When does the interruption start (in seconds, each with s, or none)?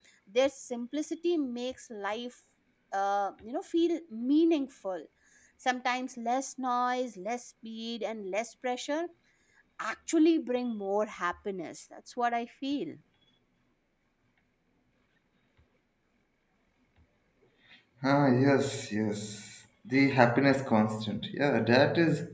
none